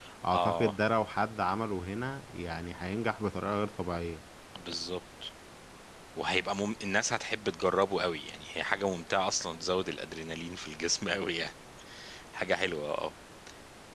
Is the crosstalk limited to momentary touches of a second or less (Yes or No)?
Yes